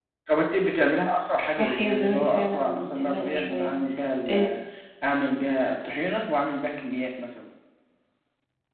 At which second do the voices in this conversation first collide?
1.5 s

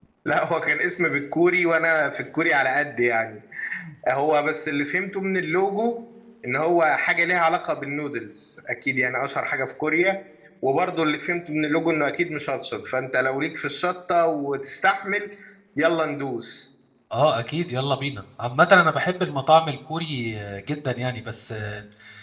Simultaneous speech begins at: none

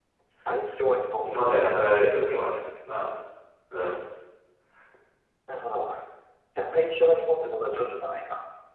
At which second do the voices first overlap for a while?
none

